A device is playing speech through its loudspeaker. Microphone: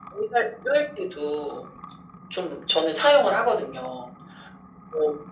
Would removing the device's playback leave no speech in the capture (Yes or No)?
Yes